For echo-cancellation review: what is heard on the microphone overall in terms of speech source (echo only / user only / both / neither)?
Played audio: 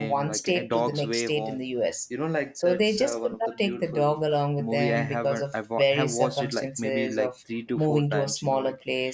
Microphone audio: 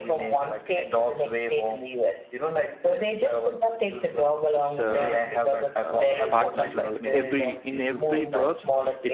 both